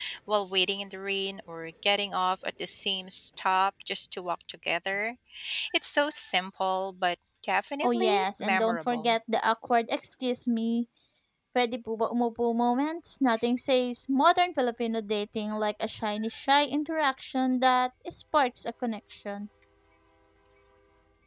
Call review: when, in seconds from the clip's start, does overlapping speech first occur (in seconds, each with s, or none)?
7.8 s